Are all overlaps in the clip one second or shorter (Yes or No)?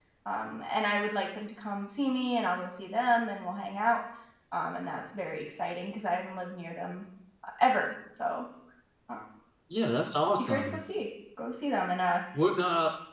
Yes